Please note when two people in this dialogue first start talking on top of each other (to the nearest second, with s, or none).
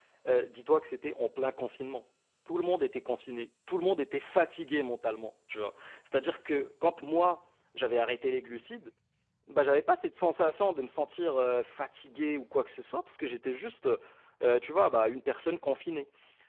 none